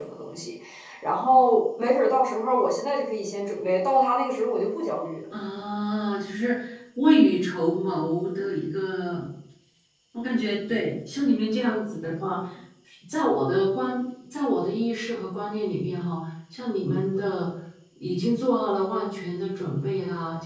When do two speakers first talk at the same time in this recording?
none

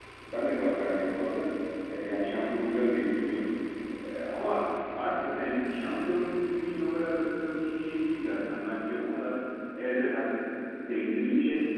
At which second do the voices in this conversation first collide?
none

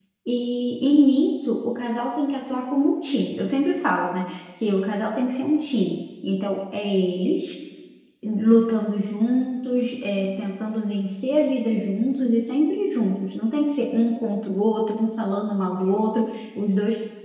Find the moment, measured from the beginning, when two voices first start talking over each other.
none

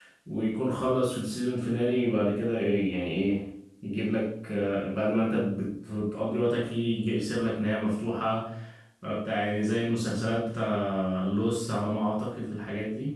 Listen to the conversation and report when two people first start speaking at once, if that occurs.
none

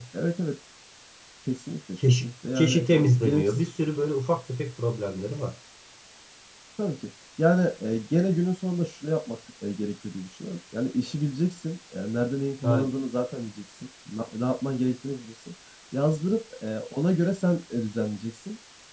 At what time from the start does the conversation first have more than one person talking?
2.2 s

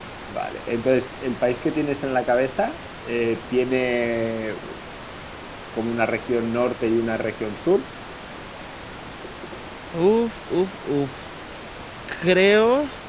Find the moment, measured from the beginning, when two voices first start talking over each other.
none

